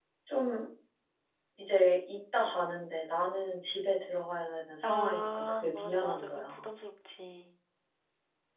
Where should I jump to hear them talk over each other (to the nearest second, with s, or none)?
5 s